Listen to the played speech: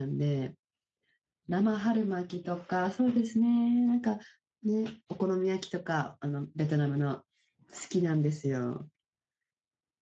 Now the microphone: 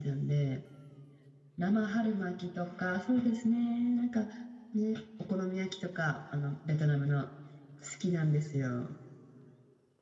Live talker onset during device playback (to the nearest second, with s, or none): none